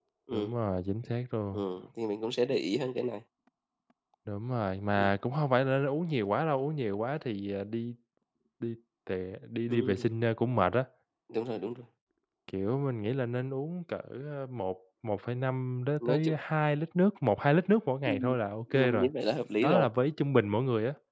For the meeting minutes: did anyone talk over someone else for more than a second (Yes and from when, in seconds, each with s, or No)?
No